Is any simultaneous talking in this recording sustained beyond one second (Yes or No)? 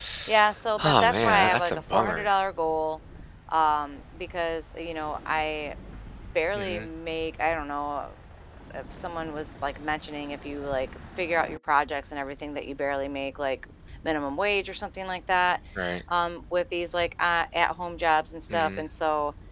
Yes